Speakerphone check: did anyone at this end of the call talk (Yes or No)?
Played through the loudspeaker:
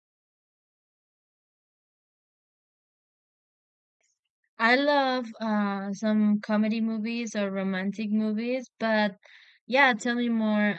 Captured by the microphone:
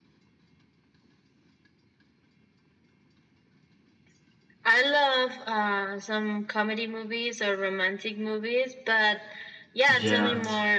Yes